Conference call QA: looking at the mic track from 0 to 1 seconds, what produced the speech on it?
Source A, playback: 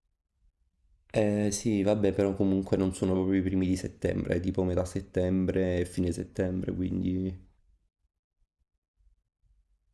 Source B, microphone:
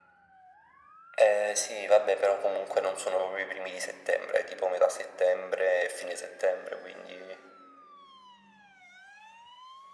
neither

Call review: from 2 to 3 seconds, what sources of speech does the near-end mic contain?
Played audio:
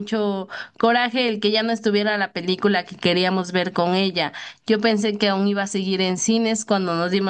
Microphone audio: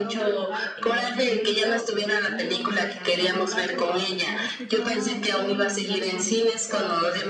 both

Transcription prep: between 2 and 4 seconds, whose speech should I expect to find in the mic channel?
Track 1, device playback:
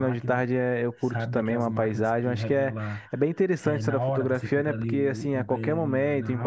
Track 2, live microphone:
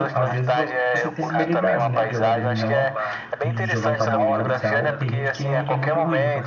both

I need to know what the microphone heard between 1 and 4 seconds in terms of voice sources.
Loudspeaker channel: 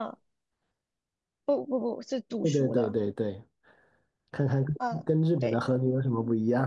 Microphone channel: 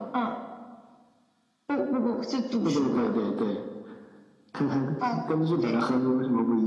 echo only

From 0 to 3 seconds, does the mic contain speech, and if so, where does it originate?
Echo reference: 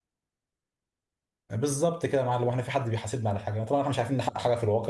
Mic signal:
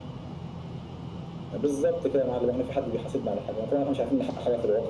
echo only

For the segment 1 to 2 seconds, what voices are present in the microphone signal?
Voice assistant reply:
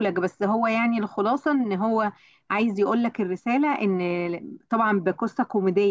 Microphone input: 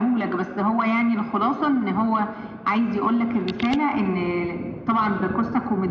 echo only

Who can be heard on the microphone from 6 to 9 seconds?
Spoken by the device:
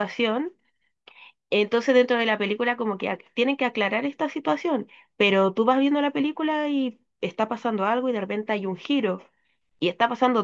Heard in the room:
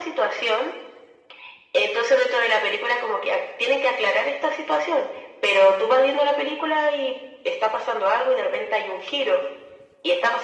echo only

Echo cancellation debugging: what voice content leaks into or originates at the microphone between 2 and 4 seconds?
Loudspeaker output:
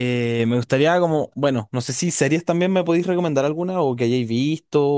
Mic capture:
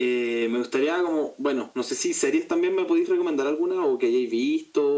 echo only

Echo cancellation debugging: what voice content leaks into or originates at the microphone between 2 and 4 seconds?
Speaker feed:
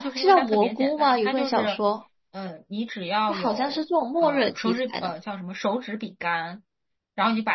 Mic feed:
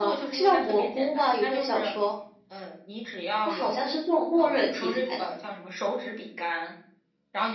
echo only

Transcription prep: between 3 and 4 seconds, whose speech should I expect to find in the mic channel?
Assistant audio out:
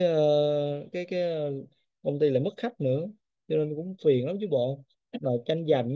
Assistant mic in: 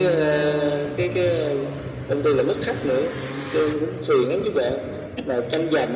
echo only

